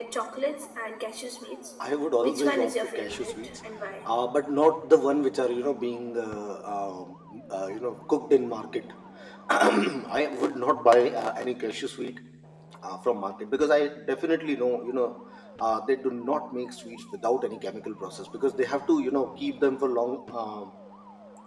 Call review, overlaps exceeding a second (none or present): present